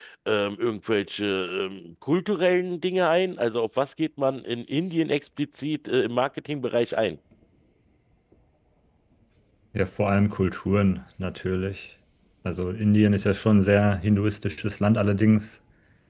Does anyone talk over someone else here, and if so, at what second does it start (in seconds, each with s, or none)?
none